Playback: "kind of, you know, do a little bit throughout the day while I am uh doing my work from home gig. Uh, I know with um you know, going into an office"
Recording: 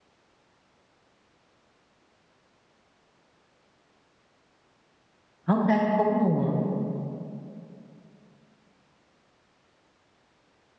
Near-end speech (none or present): present